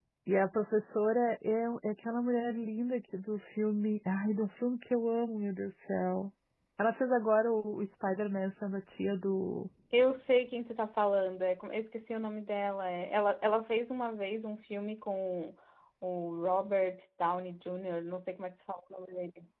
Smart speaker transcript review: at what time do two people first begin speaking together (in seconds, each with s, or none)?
none